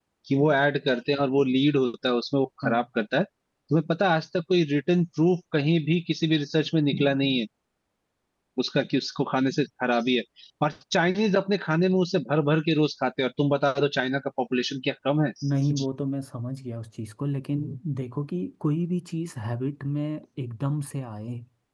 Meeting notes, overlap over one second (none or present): none